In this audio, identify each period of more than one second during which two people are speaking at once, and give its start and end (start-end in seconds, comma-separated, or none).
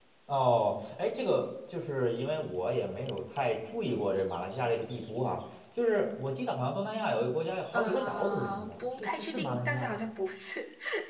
7.7-10.0